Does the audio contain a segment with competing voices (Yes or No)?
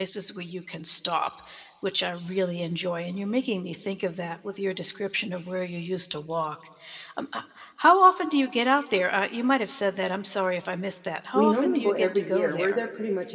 Yes